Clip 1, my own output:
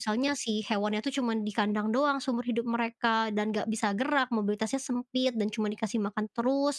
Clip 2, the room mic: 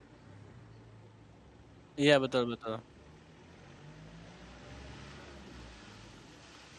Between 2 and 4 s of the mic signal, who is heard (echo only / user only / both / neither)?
user only